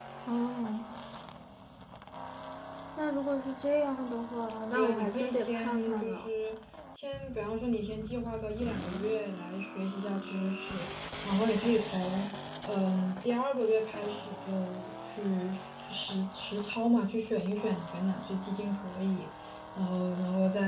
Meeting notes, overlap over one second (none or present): present